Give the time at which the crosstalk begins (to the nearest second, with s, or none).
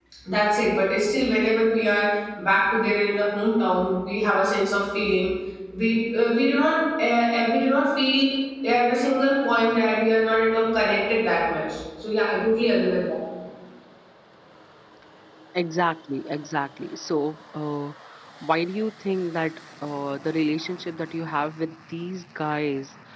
none